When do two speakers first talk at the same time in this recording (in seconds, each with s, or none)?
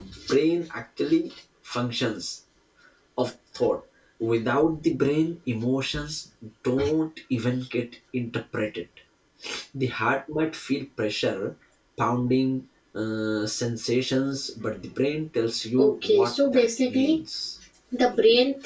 15.8 s